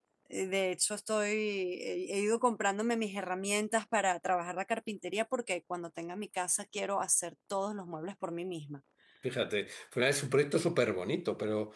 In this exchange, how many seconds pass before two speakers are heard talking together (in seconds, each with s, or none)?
none